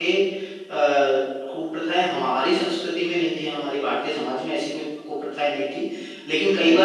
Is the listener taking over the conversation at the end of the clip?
No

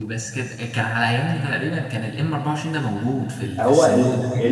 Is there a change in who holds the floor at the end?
Yes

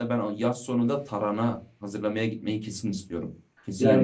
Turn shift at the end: Yes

